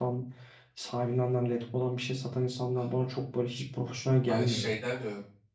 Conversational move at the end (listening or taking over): taking over